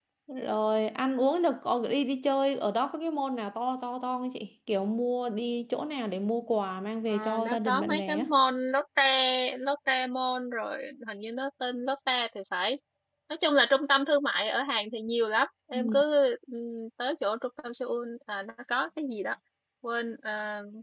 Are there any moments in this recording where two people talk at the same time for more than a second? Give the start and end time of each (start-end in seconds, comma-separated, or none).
7.1-8.3